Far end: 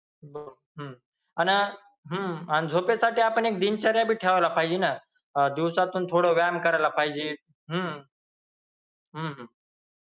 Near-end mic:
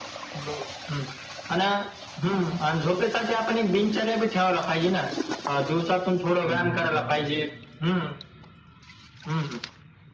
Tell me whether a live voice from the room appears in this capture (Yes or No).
Yes